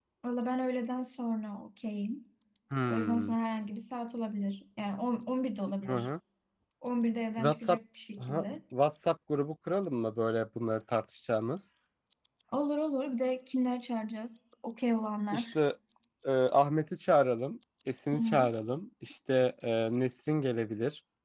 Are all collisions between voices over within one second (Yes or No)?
Yes